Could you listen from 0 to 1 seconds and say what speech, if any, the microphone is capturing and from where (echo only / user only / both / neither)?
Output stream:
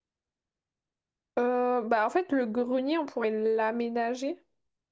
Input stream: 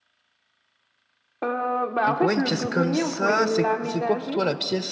neither